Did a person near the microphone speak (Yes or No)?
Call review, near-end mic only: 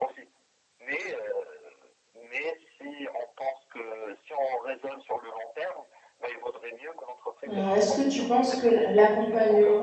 Yes